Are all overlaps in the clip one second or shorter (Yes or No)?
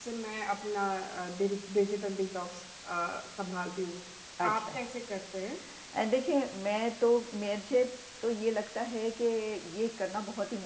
Yes